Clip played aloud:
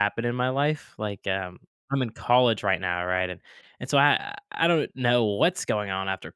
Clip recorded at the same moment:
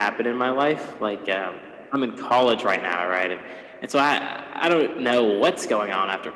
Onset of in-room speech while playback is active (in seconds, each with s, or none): none